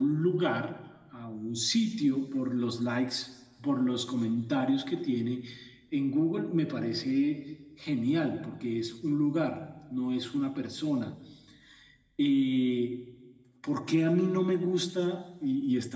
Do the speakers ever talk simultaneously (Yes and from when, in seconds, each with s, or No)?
No